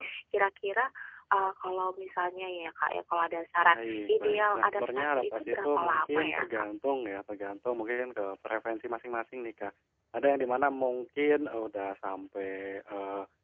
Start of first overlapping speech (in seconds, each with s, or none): 3.6 s